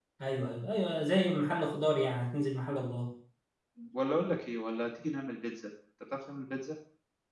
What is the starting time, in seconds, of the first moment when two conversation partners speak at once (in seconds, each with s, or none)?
none